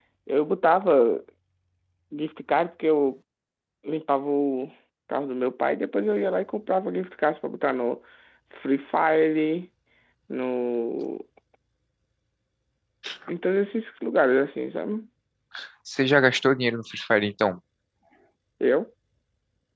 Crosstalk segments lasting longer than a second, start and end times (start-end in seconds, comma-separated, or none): none